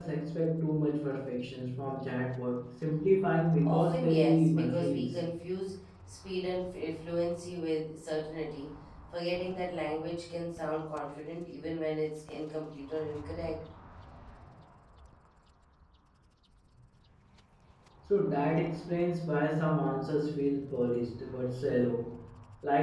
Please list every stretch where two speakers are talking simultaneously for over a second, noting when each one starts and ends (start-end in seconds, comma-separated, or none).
3.6-5.2